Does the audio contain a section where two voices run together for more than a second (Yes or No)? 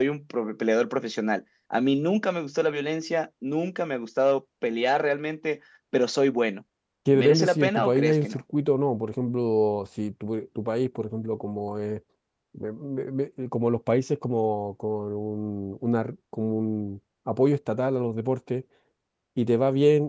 Yes